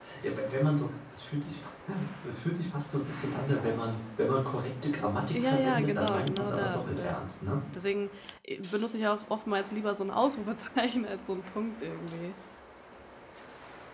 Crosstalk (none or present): present